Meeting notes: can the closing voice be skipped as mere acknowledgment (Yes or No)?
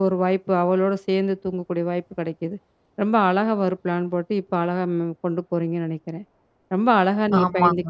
Yes